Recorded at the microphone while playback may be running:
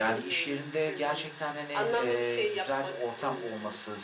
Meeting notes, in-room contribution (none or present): present